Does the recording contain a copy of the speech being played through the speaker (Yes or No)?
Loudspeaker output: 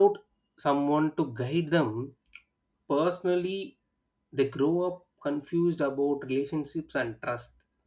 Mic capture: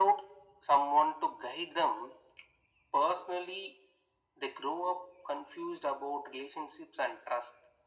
Yes